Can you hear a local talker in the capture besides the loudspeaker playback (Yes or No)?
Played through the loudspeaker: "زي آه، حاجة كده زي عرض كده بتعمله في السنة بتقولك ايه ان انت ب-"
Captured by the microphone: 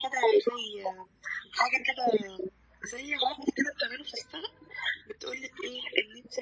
No